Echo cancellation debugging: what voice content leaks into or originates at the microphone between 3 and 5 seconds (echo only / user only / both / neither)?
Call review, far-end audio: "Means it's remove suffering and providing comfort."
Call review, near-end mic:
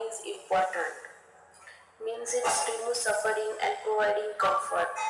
echo only